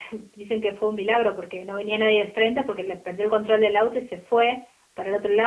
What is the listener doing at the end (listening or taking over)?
listening